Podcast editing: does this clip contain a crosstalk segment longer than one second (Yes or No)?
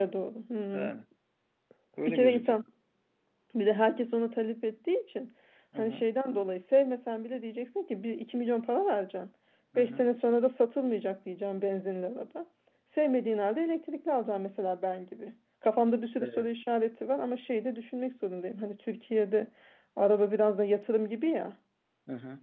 No